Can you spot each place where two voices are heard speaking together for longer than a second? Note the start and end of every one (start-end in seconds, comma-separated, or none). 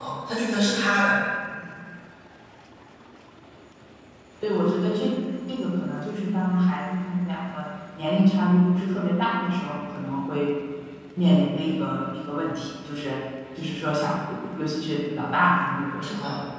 none